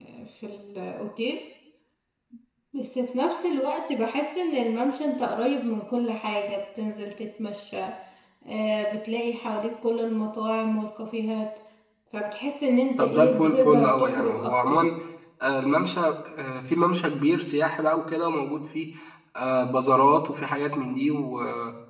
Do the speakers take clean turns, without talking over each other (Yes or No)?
No